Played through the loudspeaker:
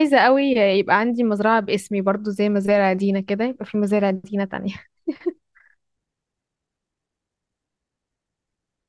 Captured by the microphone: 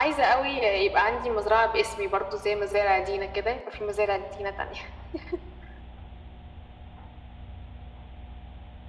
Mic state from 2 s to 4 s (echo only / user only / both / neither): echo only